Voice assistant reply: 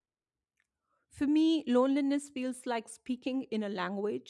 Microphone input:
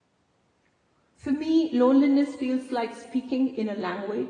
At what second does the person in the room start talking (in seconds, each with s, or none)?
none